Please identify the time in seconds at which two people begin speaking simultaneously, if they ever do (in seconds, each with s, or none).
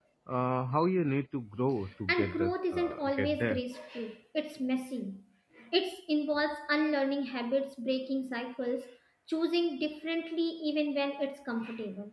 2.1 s